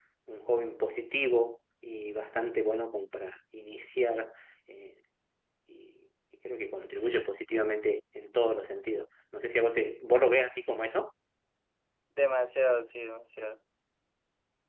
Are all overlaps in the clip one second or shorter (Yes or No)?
Yes